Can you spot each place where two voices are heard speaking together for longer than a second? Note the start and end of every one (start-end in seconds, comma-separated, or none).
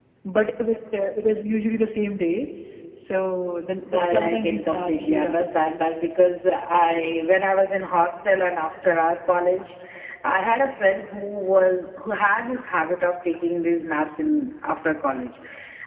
3.9-5.4